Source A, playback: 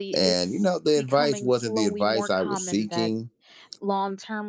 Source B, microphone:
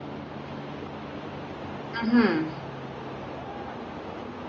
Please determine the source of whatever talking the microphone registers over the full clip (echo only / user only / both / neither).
user only